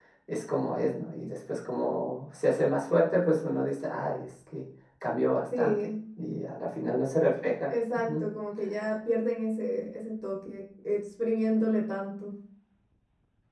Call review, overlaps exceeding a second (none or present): none